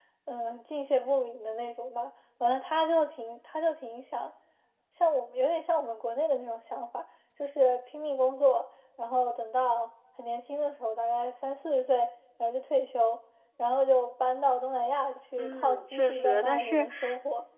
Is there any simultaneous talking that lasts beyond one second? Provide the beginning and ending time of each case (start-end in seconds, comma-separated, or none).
15.4-16.9